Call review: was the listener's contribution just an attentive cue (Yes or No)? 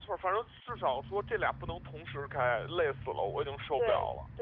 No